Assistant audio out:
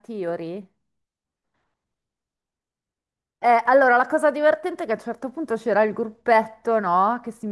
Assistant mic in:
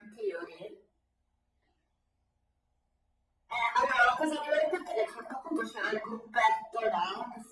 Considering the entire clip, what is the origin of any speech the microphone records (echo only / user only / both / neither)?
echo only